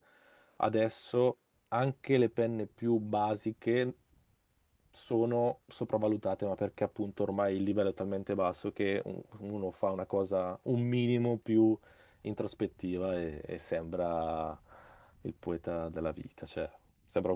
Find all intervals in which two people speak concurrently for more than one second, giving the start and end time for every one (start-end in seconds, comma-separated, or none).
none